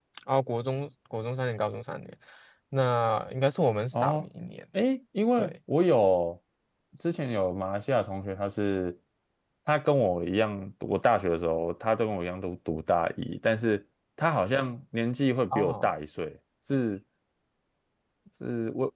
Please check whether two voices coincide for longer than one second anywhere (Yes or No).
No